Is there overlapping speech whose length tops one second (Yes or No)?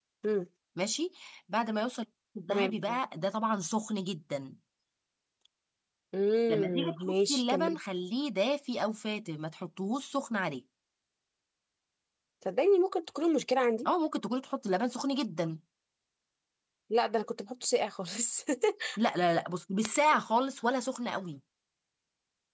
Yes